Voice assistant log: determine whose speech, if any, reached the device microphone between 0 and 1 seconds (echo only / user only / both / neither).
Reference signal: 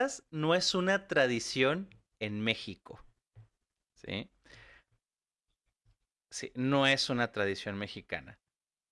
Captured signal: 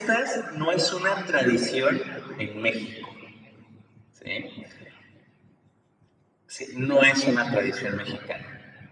echo only